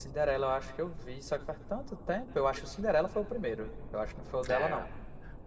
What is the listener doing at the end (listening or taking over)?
taking over